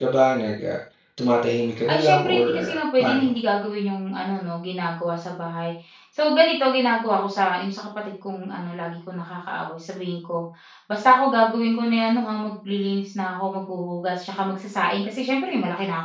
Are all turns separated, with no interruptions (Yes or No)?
No